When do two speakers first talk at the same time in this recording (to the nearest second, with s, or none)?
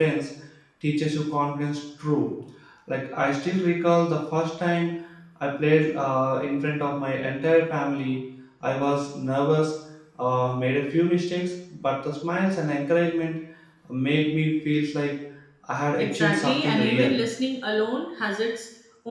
16 s